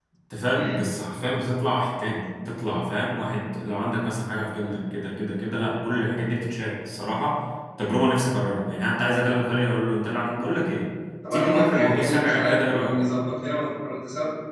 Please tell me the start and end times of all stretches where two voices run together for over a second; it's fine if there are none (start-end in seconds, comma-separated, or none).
11.3-13.0